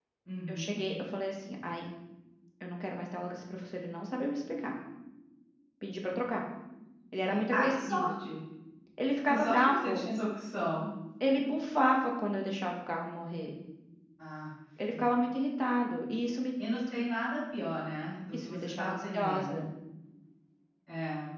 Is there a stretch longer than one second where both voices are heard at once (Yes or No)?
Yes